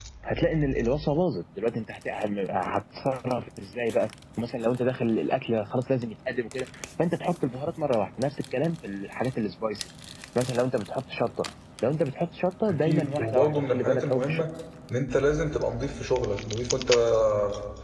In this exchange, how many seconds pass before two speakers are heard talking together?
13 s

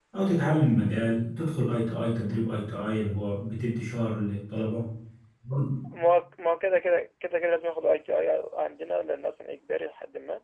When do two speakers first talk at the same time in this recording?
none

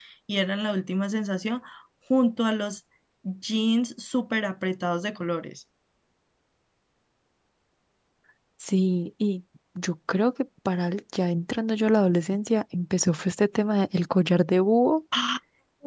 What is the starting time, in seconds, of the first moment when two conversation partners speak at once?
none

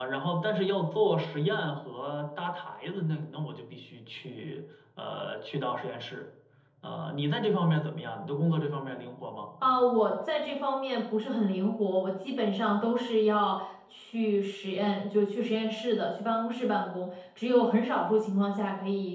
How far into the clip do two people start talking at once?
none

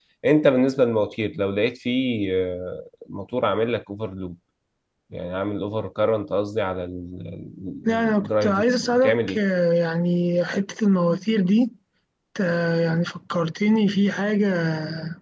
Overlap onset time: 8 s

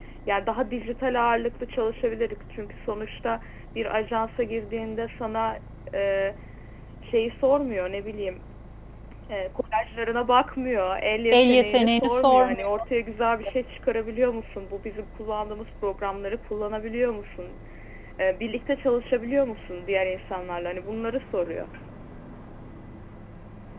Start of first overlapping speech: 11 s

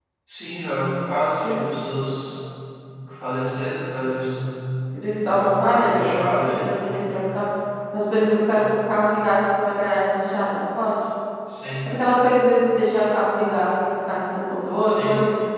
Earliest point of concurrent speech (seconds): 5 s

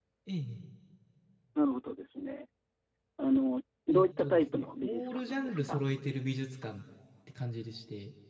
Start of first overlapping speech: 4 s

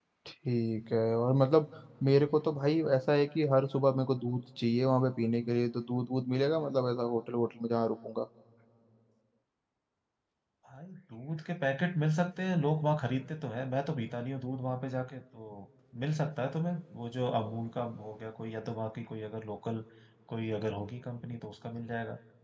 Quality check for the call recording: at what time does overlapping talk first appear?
none

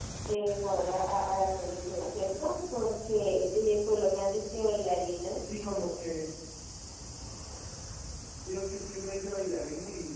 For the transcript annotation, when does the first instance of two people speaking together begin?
none

